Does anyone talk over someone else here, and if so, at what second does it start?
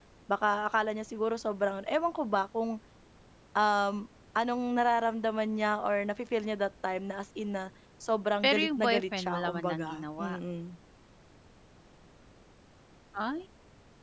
8.4 s

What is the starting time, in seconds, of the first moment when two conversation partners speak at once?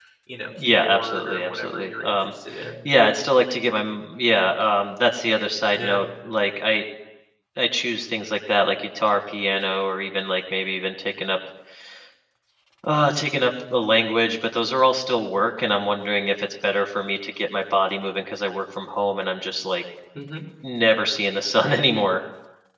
0.6 s

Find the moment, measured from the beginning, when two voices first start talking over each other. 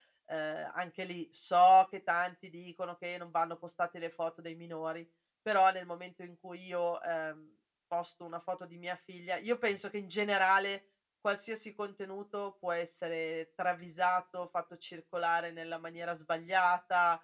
none

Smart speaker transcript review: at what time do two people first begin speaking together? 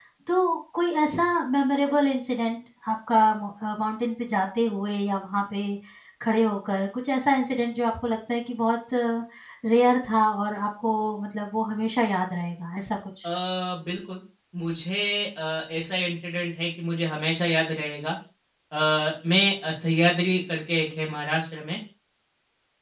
none

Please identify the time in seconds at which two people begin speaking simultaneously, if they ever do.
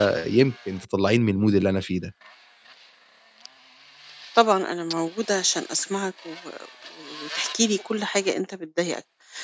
none

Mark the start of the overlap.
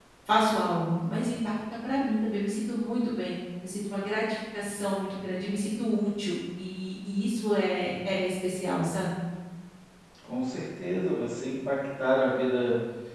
none

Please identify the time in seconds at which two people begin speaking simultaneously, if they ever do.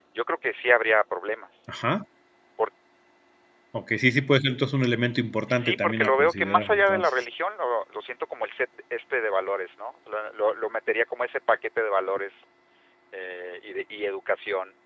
5.5 s

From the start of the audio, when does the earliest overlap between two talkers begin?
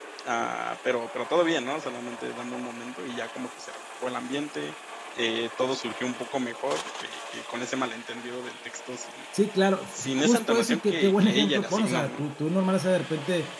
10.0 s

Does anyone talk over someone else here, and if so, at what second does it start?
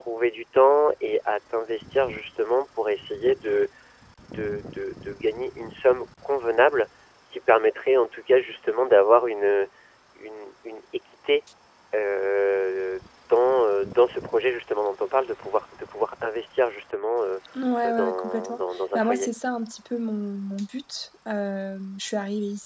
17.9 s

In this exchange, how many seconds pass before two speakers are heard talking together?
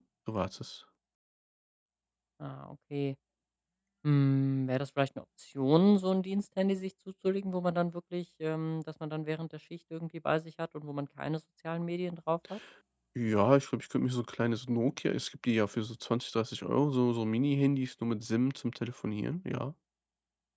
none

